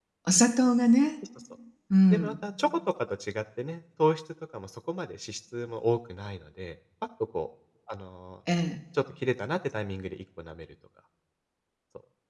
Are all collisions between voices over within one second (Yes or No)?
Yes